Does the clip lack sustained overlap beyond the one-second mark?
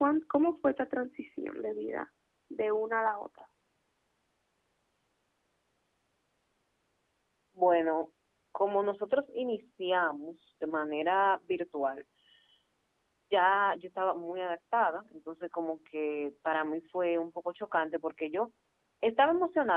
Yes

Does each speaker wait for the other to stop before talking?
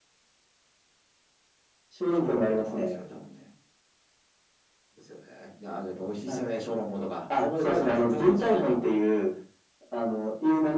No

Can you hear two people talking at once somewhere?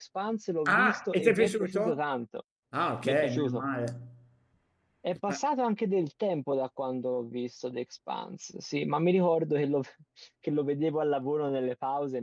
Yes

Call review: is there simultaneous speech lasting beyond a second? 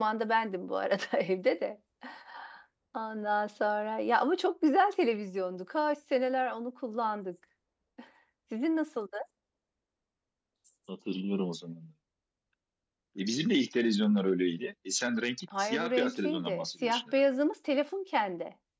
Yes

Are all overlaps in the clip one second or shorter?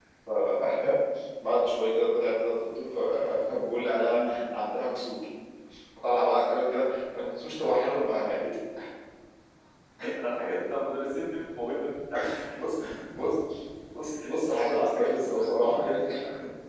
No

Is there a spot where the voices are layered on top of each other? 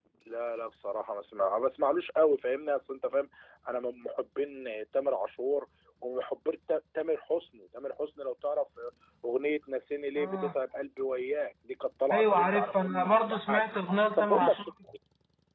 Yes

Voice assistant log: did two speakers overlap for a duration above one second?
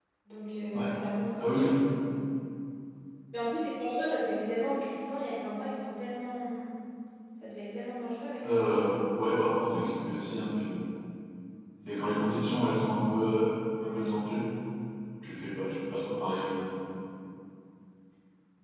No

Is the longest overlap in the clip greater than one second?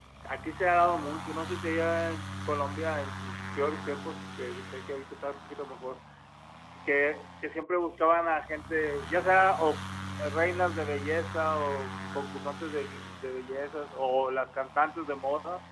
No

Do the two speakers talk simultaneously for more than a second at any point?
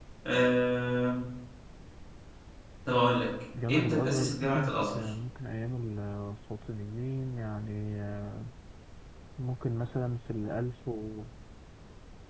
Yes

